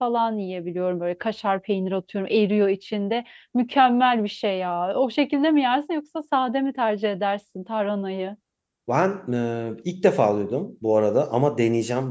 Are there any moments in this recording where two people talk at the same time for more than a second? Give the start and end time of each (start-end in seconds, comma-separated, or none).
none